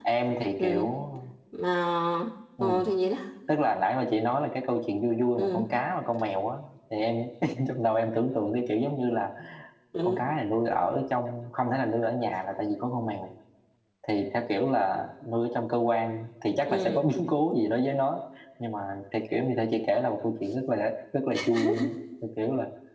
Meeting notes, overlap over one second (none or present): none